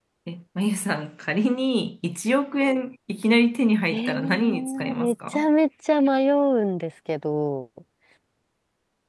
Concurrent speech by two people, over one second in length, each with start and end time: 3.9-5.5

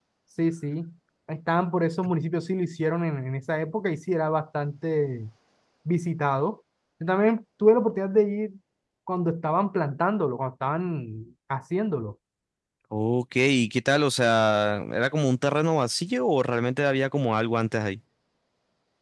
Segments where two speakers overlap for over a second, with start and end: none

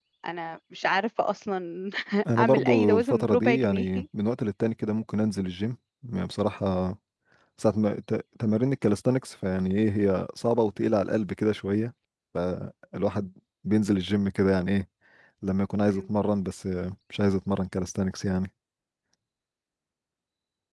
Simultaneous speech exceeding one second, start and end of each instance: 2.4-3.9

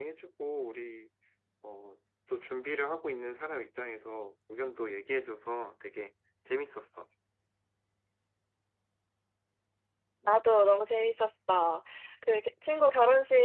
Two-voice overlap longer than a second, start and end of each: none

